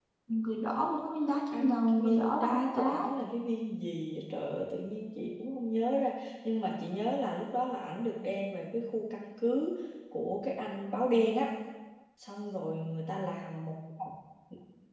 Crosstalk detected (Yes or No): Yes